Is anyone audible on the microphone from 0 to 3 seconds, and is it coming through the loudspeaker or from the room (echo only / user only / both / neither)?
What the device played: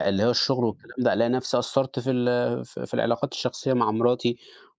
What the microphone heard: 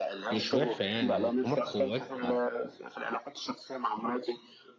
both